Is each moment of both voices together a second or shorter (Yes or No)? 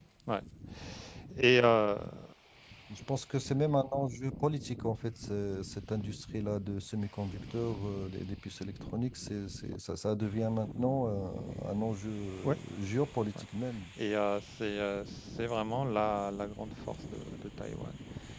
Yes